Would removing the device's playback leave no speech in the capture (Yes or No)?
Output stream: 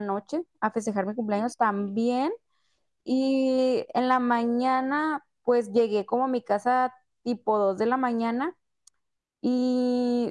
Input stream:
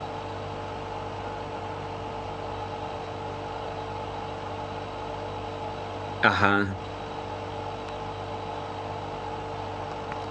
No